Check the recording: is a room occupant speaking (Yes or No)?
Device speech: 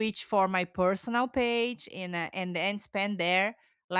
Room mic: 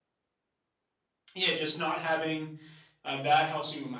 Yes